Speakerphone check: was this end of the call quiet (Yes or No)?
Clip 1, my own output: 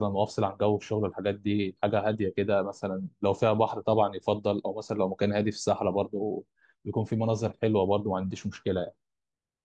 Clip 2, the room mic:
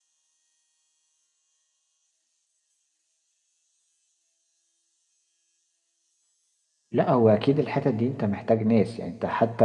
No